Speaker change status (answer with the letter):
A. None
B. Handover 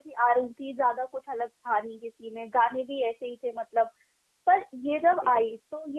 A